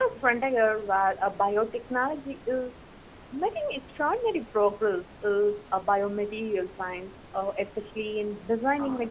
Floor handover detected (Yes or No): Yes